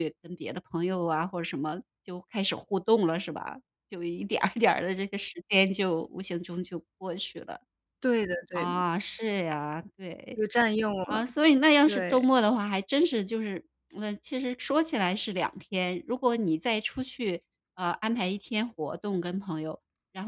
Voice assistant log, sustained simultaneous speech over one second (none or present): none